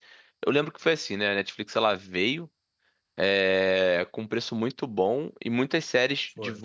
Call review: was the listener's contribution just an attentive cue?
Yes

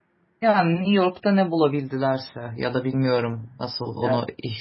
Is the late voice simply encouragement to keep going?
Yes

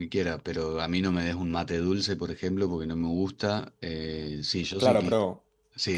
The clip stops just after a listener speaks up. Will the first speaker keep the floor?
No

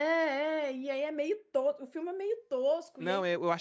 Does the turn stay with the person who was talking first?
No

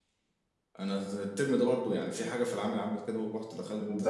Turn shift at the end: No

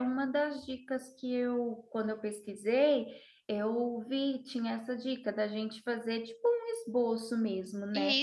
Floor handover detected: No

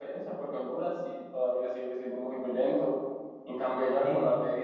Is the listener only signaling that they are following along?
Yes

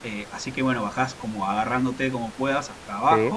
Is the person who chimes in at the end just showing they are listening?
Yes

